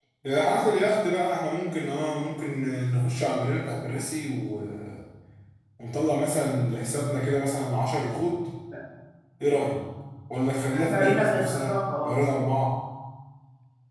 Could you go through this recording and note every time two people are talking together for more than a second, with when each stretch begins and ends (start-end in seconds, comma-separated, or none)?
10.9-12.2